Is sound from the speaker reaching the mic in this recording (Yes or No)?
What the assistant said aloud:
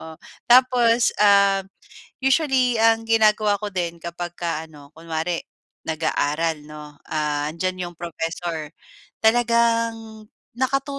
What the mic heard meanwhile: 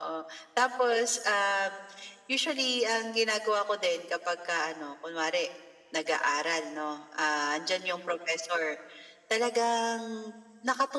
Yes